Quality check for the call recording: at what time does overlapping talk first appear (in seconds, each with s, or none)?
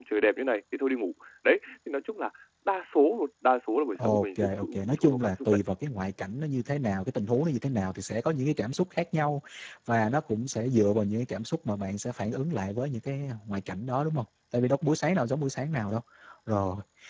4.0 s